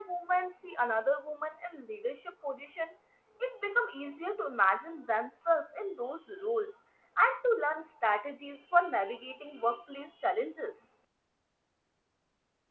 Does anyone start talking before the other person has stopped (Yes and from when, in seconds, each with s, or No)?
No